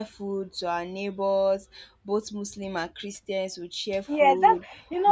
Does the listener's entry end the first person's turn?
Yes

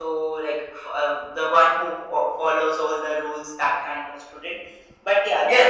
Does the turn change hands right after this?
Yes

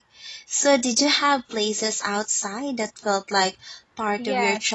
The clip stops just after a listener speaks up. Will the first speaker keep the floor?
No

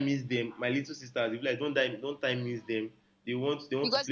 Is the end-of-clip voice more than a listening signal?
Yes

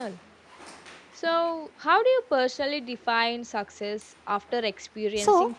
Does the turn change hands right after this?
Yes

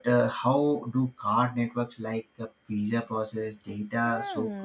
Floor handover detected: Yes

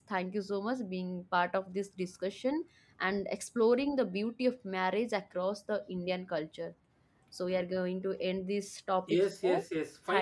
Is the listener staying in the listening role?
No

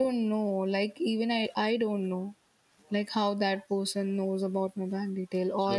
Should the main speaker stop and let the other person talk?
No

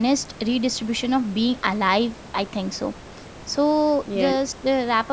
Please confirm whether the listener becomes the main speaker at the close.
No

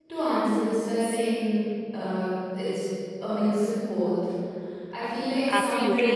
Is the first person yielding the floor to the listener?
Yes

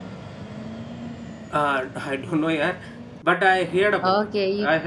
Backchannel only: No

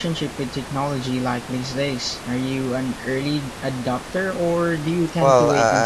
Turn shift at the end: Yes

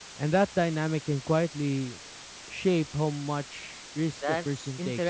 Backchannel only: No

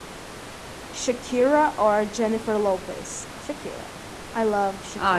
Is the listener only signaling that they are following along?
No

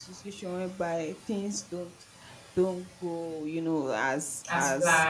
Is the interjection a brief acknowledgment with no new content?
Yes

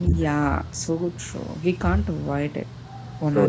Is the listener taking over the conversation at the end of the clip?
Yes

